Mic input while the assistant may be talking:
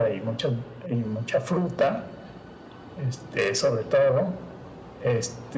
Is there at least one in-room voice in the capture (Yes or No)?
No